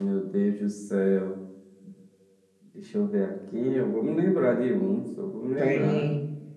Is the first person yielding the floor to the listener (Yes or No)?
Yes